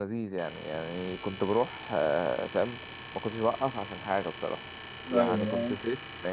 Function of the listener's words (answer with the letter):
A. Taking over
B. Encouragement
B